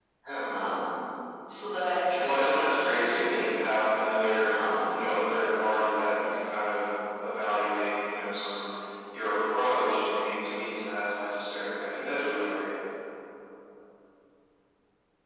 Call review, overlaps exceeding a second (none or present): present